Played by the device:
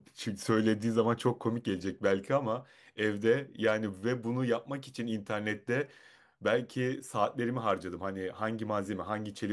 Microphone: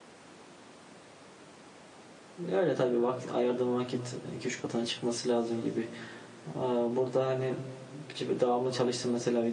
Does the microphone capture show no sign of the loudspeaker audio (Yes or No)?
Yes